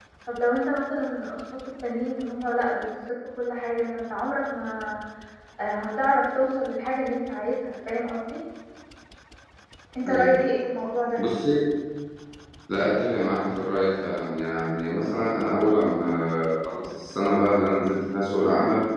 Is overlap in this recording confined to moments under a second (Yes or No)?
Yes